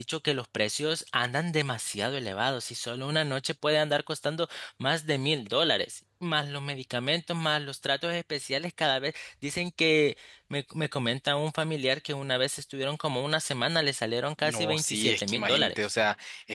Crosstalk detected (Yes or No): Yes